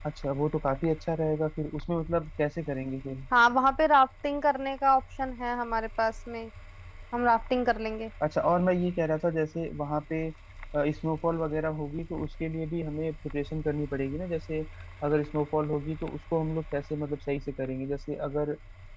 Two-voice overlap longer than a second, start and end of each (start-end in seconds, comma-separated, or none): none